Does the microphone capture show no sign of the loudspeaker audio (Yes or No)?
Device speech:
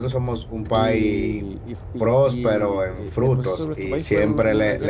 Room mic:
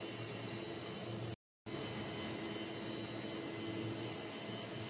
Yes